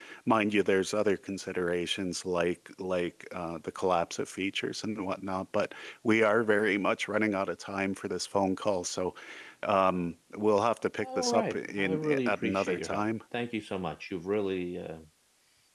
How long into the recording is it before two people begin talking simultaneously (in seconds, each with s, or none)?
11.0 s